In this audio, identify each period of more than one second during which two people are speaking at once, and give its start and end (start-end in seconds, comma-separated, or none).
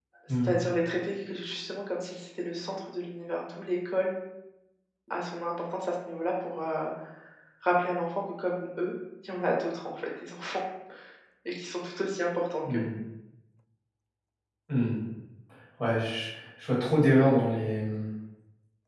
none